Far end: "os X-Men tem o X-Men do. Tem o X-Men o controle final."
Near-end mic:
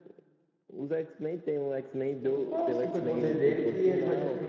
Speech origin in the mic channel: both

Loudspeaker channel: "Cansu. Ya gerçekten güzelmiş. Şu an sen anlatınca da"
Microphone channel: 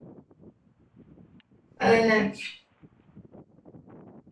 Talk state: user only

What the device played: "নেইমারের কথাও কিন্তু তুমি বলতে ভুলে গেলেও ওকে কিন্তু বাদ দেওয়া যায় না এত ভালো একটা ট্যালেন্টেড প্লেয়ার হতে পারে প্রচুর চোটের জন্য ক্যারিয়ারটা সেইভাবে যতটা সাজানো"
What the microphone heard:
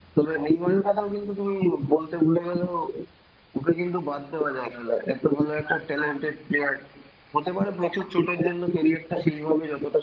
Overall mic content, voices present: echo only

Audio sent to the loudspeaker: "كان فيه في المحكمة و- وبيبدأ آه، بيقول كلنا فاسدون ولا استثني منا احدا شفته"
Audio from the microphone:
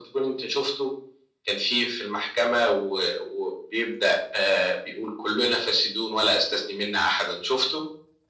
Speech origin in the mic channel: echo only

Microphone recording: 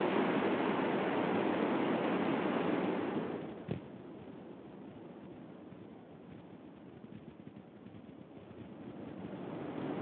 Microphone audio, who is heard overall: neither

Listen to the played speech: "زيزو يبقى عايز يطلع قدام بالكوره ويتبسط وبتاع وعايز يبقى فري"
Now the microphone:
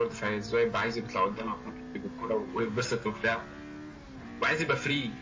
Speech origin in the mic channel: echo only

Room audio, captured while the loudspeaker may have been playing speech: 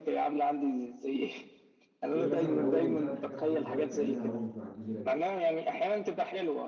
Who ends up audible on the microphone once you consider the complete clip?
both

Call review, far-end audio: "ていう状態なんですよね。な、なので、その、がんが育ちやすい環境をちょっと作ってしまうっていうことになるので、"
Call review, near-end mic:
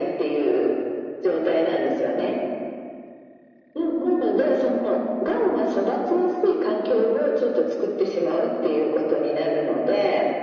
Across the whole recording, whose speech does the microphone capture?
echo only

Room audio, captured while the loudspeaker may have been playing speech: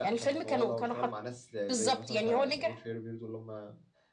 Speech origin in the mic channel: both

